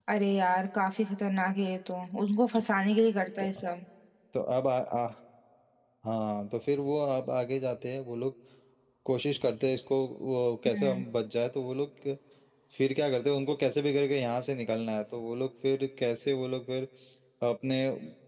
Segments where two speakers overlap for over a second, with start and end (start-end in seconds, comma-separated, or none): none